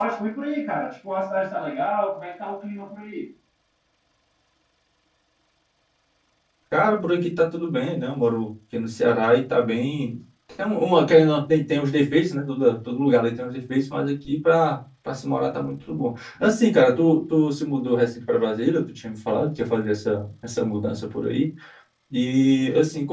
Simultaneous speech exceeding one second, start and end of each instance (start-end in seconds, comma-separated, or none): none